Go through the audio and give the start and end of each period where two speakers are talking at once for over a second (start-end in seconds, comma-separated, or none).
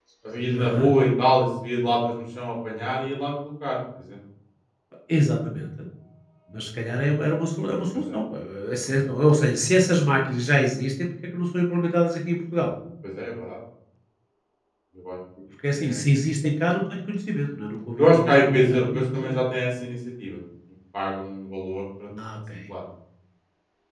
18.0-19.3